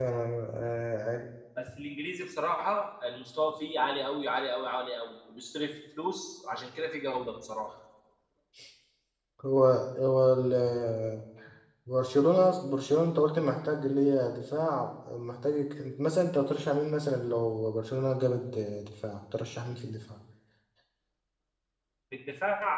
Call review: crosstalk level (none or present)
none